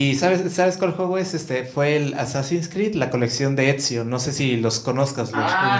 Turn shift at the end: Yes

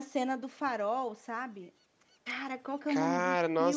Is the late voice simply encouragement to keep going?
No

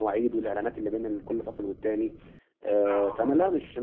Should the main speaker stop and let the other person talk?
No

